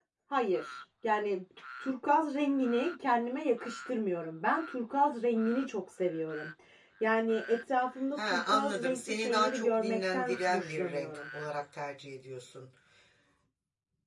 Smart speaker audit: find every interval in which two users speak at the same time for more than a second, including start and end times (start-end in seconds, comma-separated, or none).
8.2-11.2